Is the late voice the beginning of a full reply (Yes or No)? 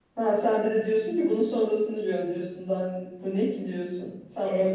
Yes